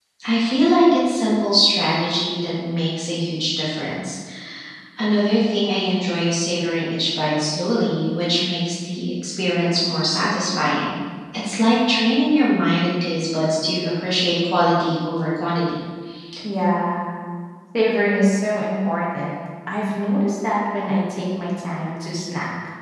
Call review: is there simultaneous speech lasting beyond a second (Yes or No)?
No